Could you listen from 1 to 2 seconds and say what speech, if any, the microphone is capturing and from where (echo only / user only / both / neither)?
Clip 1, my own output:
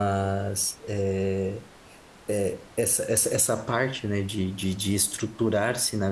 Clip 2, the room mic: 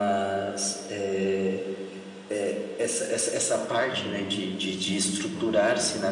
echo only